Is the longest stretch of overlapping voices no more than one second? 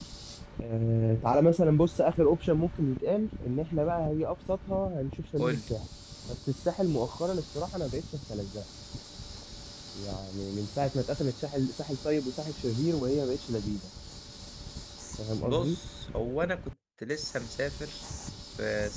Yes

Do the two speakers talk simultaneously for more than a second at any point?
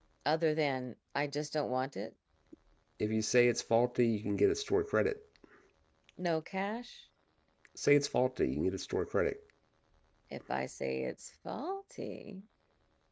No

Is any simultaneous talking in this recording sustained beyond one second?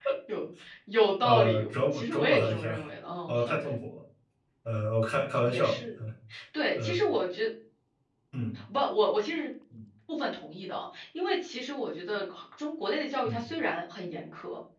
Yes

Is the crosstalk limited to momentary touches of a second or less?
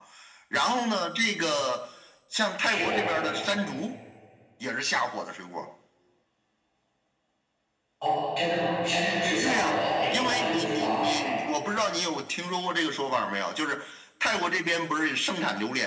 No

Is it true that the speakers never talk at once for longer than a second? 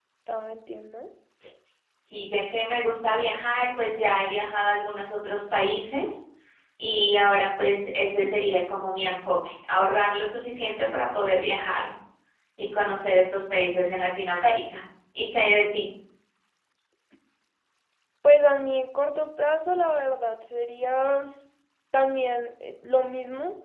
Yes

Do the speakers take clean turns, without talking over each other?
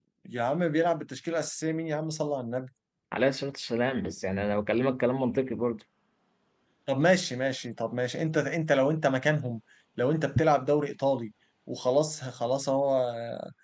Yes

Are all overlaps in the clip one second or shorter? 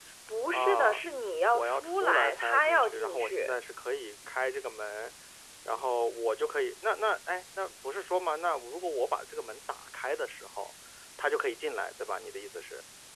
No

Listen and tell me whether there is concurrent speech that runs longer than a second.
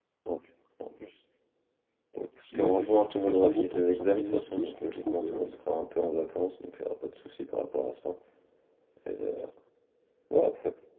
Yes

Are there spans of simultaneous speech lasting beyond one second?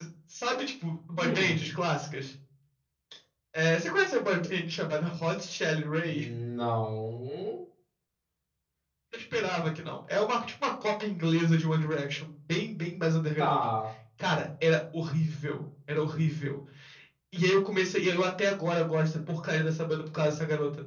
No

